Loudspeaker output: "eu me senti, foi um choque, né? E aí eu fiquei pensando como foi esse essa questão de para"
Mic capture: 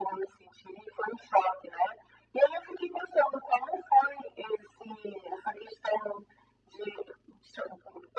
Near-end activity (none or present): none